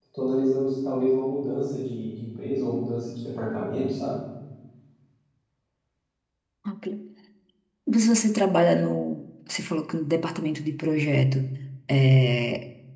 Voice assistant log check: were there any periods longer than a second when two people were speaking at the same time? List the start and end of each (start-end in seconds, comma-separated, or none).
none